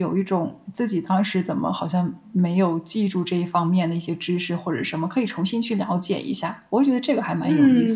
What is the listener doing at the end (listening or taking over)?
taking over